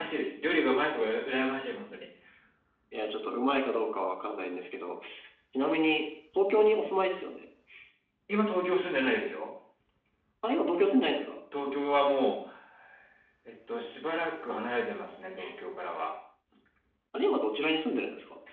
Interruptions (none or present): none